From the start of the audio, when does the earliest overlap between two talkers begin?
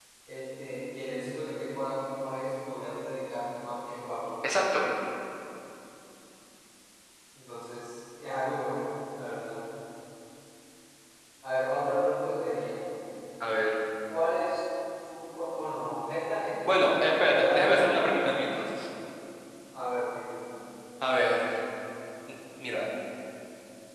16.6 s

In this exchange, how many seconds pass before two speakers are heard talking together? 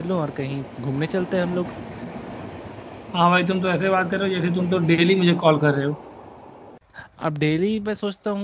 none

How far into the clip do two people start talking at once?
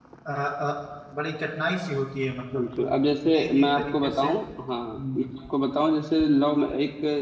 2.5 s

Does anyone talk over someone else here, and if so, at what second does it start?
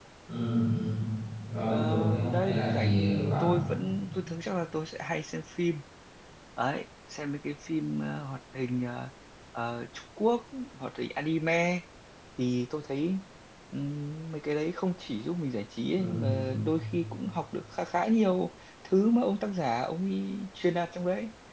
1.6 s

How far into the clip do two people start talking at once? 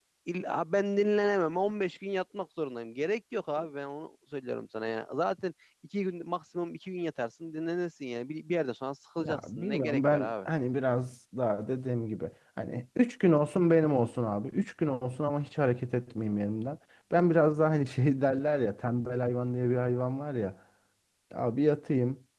9.2 s

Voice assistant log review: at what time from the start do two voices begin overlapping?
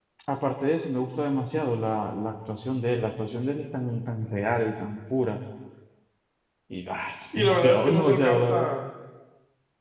7.3 s

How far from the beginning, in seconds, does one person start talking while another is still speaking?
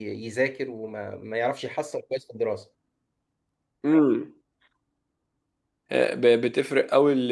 none

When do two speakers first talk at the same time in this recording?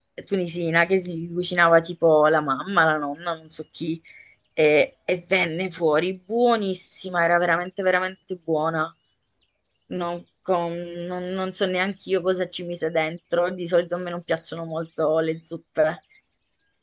none

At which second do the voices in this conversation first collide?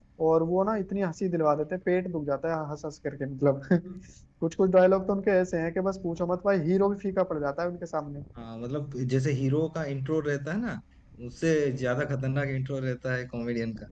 none

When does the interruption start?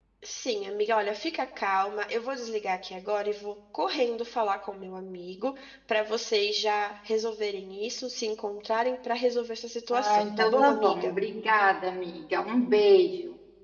9.9 s

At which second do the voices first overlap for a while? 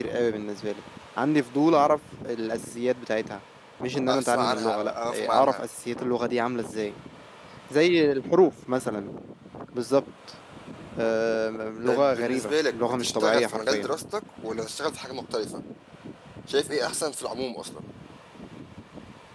4.1 s

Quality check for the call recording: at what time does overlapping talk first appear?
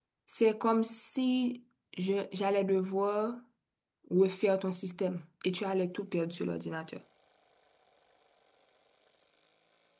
none

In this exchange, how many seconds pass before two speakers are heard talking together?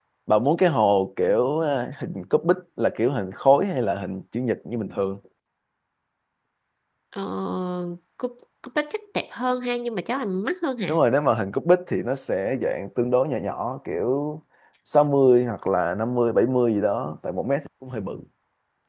none

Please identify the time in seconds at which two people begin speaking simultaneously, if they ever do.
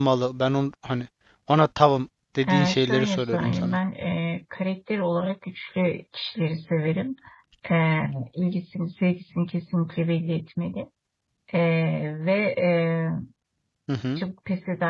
2.4 s

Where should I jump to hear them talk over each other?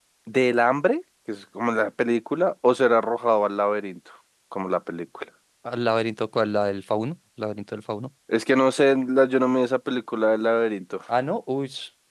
none

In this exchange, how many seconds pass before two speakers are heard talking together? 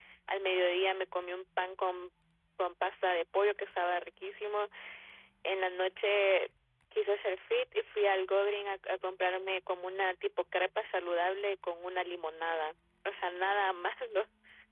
none

